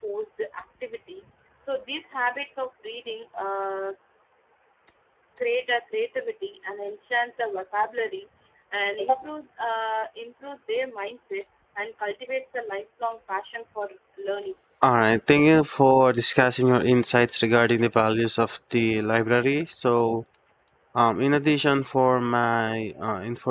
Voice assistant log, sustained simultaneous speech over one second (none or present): none